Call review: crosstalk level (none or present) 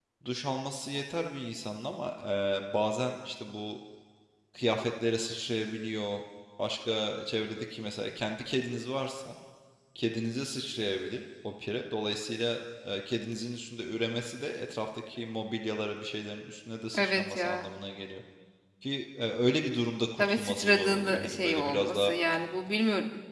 present